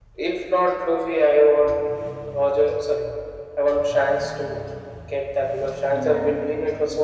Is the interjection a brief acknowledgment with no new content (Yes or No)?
Yes